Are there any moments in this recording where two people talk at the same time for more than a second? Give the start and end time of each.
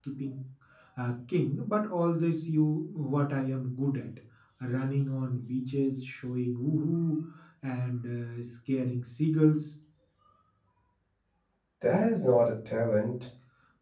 none

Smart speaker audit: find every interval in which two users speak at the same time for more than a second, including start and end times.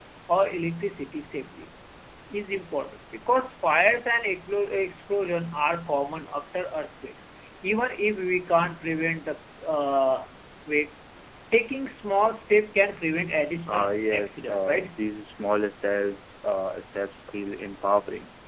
13.7-14.9

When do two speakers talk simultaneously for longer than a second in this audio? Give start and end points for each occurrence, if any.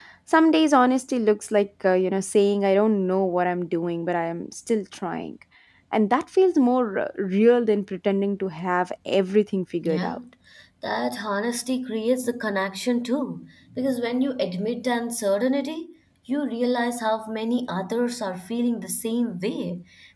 none

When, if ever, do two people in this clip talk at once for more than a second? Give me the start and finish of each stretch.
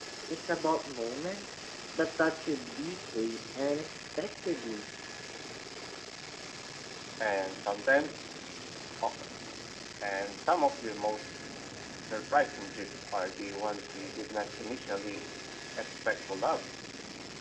none

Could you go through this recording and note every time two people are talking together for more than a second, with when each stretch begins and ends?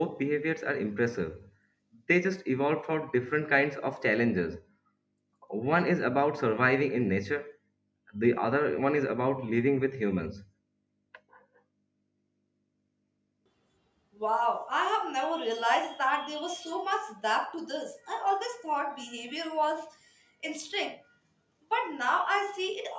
none

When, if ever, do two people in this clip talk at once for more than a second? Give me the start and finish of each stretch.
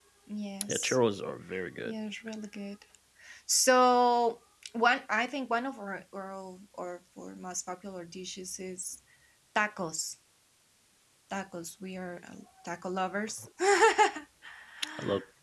none

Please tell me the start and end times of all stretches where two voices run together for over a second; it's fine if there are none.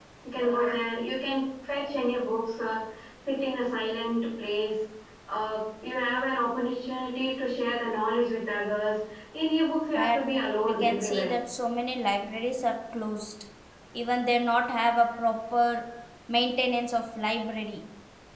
9.9-11.3

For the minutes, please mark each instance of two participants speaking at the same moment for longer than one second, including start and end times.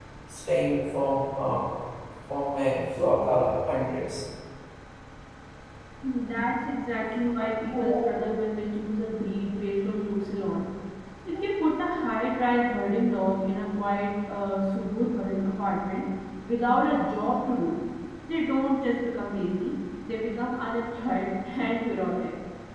none

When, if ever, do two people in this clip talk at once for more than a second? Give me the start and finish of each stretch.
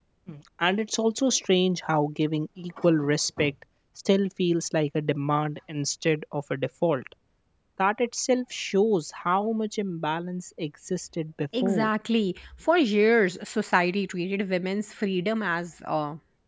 none

